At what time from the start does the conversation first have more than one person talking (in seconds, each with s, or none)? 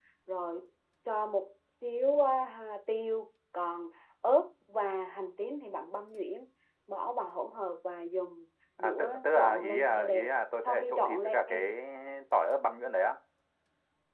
8.8 s